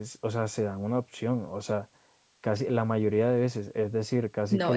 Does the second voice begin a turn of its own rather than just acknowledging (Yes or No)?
Yes